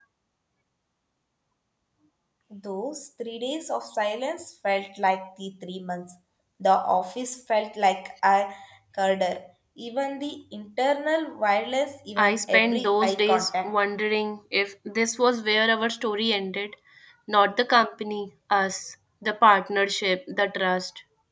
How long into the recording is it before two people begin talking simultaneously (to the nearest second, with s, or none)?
12 s